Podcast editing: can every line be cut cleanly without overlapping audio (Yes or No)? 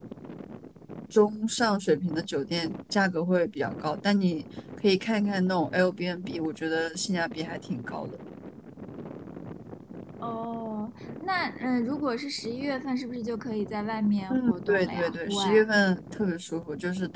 No